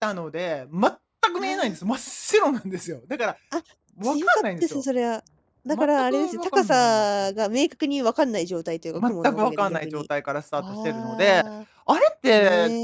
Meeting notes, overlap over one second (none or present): present